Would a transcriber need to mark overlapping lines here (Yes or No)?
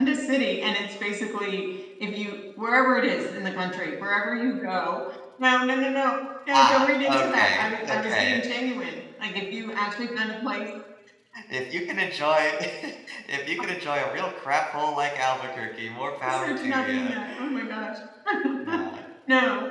Yes